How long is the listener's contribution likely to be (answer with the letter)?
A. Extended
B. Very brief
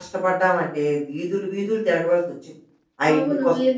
A